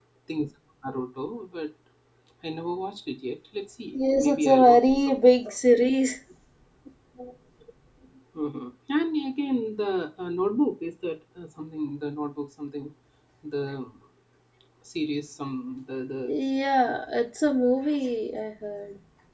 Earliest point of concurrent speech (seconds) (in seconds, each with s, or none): 3.9 s